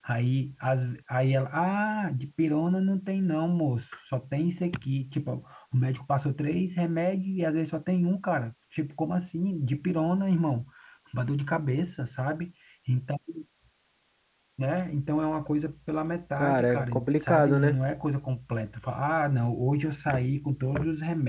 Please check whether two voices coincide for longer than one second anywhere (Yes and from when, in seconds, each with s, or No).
Yes, from 16.4 s